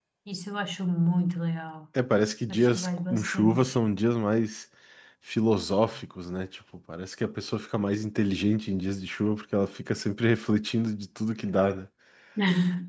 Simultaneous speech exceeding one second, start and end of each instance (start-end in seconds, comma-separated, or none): 2.5-3.9